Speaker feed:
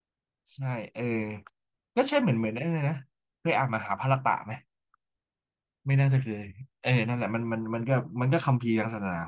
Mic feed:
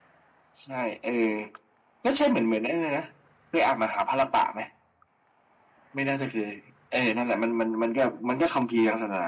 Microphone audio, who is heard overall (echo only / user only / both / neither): echo only